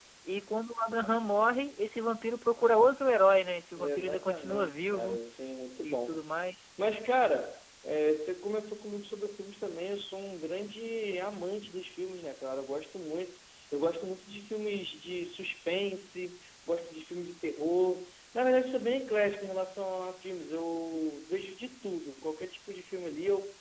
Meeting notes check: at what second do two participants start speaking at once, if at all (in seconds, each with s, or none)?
3.7 s